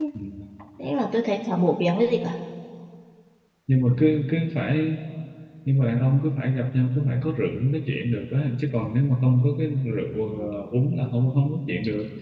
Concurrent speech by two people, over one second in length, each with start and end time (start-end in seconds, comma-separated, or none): none